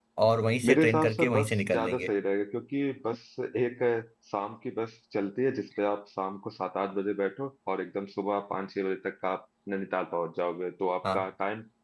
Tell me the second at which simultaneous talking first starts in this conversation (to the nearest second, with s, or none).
1 s